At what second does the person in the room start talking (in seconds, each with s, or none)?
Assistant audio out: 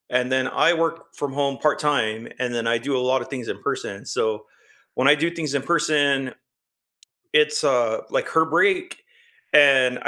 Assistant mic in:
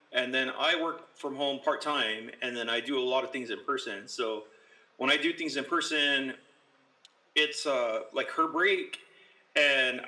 none